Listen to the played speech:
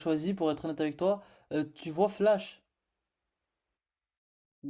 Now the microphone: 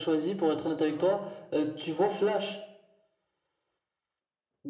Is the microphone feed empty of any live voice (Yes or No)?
No